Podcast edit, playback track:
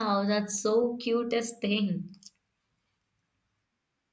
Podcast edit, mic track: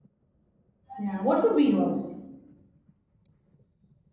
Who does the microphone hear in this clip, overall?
user only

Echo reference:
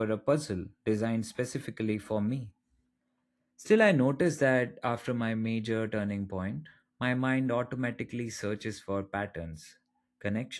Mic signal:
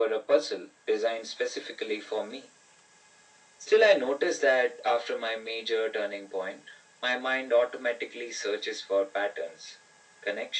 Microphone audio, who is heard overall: echo only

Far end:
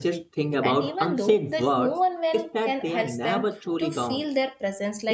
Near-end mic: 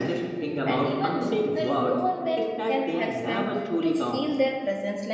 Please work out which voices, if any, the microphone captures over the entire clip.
echo only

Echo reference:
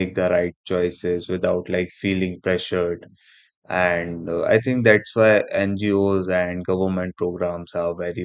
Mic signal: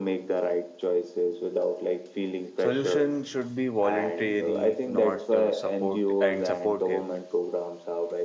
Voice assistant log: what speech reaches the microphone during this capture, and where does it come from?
both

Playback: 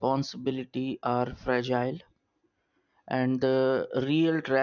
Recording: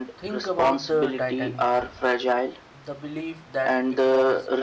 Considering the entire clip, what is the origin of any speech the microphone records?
both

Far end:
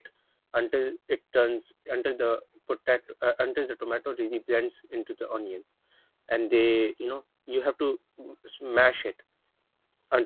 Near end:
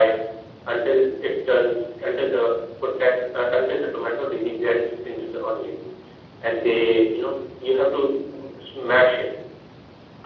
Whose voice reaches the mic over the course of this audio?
echo only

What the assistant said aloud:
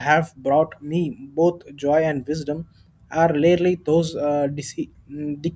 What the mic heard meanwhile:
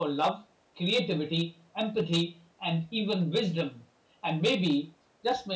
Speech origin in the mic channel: user only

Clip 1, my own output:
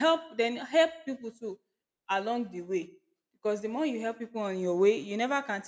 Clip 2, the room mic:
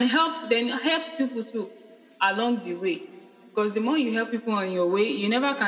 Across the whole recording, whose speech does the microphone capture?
echo only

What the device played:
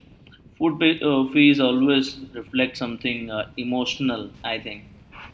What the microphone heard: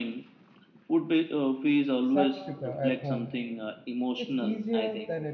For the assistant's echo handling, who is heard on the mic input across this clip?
both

